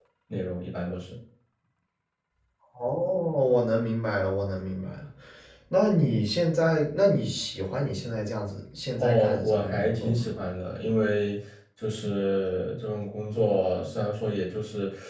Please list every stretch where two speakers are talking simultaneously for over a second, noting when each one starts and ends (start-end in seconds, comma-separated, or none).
9.0-10.2